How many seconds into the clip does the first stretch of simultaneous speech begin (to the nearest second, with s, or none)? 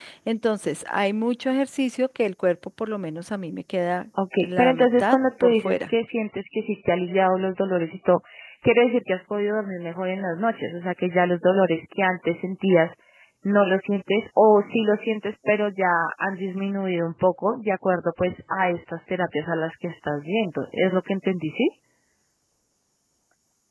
4 s